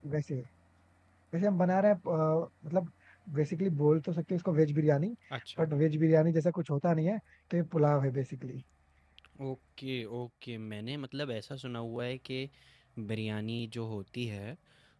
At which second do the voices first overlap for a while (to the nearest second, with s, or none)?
none